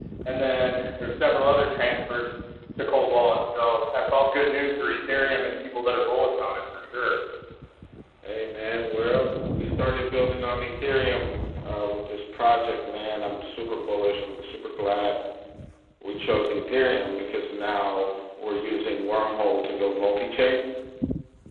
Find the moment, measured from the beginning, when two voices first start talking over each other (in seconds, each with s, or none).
none